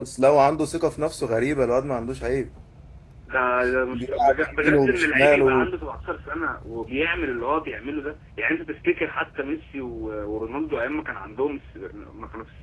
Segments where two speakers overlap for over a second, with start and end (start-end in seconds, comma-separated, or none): 3.9-5.7